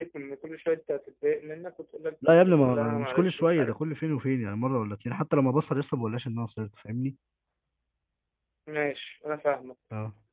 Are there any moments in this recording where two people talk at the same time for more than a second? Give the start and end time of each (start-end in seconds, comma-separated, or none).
2.3-3.7